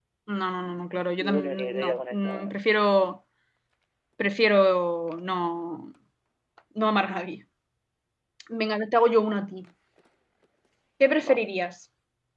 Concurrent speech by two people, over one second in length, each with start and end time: 1.2-2.5

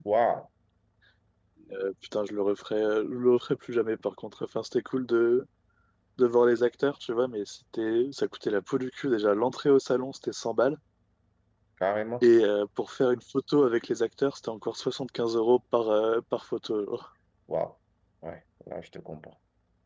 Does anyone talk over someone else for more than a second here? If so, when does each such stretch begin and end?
none

